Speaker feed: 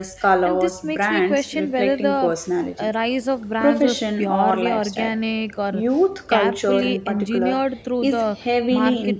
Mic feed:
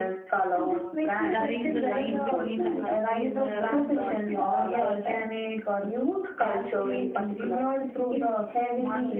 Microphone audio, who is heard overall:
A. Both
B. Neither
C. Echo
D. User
A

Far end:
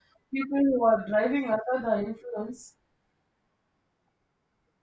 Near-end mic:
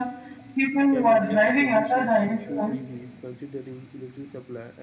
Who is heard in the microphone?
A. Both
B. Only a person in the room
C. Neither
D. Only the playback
A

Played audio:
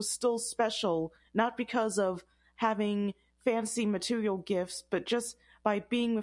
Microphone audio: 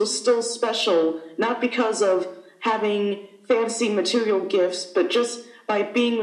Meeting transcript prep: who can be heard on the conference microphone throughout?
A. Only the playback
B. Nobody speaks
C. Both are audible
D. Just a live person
A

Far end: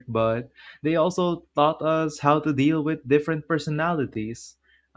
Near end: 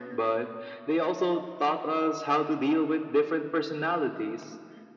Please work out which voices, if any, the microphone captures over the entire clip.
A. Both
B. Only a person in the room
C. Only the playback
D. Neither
C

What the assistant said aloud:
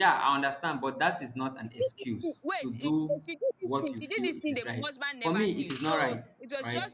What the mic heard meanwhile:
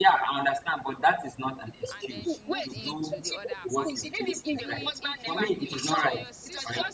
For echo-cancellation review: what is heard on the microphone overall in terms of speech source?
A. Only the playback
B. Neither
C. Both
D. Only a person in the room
C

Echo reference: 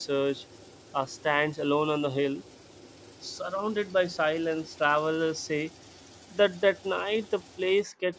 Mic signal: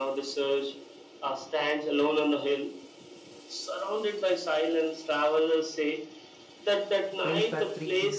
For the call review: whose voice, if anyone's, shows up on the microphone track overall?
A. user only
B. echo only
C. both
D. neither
C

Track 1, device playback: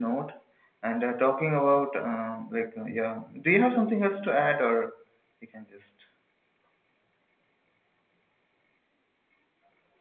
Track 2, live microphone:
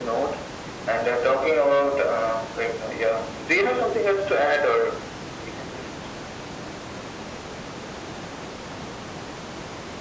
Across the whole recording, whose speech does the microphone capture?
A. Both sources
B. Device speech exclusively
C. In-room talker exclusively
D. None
B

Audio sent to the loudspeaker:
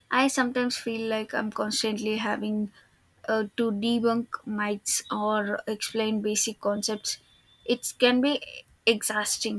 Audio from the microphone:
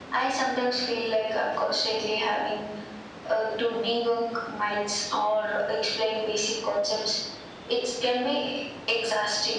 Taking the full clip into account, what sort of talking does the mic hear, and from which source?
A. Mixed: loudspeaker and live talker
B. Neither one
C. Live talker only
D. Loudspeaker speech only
D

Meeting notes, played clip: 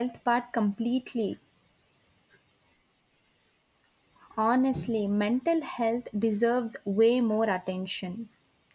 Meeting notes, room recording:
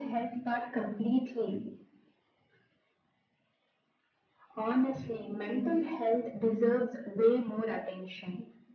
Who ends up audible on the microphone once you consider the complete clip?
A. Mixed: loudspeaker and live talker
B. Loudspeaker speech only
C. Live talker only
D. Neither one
B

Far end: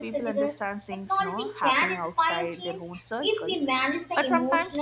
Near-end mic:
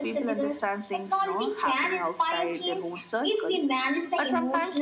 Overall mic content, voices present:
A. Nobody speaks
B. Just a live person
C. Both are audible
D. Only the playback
D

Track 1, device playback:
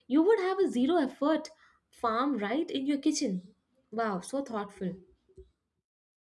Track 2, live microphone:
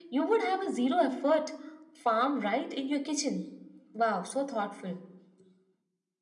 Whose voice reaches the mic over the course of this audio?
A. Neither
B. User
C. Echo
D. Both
C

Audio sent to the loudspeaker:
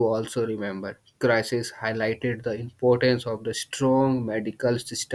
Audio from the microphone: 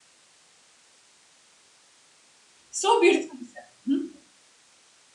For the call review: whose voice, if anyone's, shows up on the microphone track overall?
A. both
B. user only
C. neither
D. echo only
B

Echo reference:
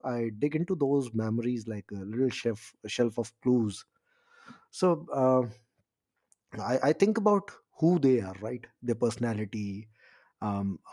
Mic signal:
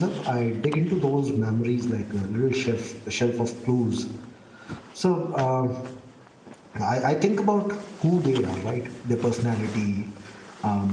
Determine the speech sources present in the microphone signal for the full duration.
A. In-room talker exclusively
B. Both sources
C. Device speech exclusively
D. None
C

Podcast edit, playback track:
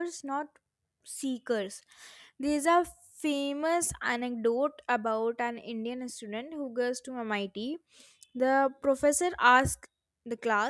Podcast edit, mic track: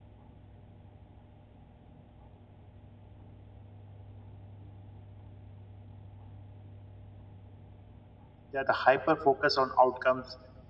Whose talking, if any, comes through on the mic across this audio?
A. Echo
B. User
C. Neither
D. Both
B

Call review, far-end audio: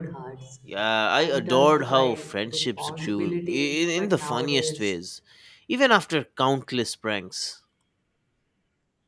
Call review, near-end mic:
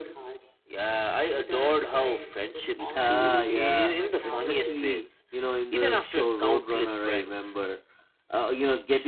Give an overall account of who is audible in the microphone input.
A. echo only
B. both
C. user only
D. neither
B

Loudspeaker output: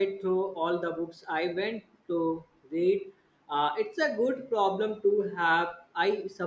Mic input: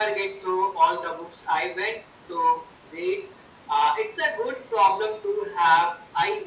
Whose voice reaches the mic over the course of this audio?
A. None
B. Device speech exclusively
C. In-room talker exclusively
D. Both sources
B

